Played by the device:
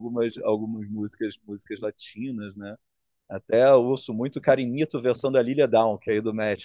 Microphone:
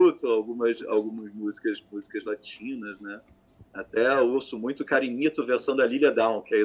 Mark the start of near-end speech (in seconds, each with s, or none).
none